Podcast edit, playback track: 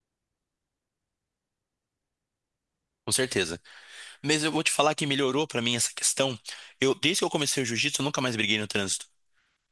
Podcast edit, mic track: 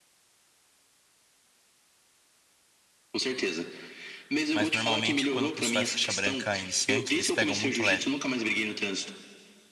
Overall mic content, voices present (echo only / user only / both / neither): both